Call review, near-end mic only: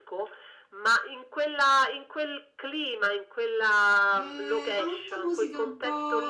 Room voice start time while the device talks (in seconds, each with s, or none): 4.0 s